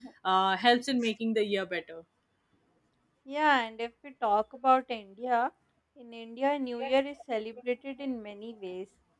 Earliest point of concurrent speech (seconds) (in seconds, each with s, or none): none